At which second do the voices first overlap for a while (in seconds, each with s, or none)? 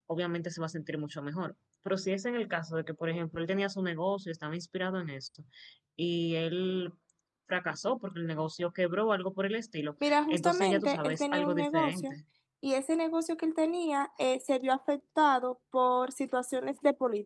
10.0 s